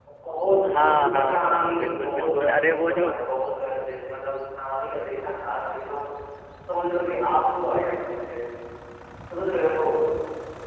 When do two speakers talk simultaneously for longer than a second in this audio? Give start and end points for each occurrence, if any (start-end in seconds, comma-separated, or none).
0.6-3.1